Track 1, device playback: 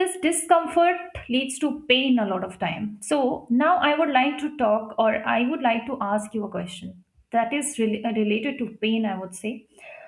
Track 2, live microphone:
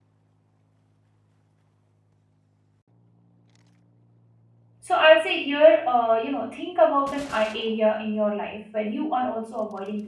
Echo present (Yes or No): No